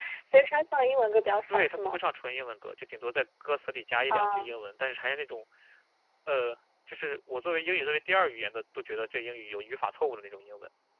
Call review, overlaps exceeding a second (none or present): none